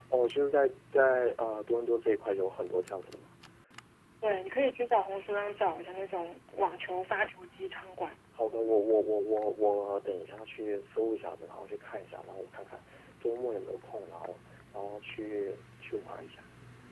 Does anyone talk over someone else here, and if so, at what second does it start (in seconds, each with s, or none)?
none